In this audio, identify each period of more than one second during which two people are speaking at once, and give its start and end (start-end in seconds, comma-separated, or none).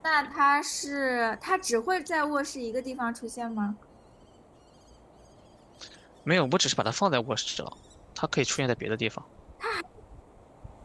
none